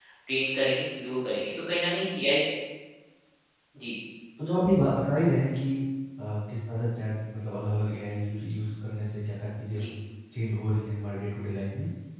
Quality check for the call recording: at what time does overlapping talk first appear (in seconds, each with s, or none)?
none